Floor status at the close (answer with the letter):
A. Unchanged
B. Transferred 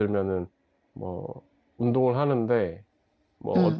A